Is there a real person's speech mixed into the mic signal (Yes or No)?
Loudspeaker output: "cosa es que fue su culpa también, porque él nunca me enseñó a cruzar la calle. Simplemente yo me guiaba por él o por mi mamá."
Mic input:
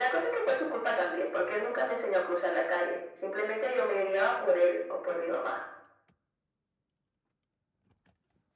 No